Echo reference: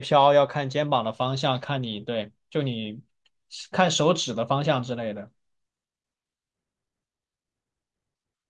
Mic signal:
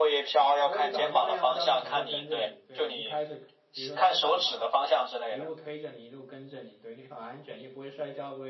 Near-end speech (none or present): present